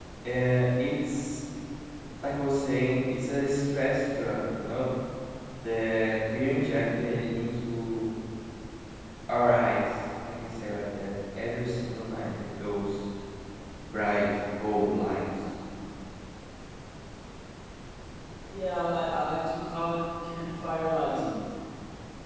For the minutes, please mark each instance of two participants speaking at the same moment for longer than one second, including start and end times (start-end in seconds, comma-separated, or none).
none